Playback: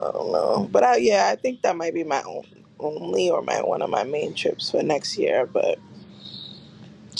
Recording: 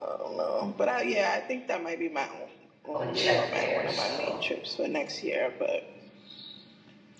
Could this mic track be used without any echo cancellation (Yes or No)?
No